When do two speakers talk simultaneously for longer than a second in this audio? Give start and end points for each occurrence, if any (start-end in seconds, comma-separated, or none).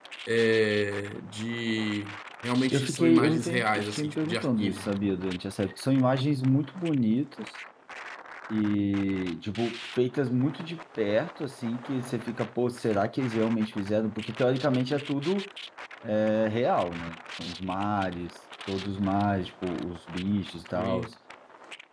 2.7-4.8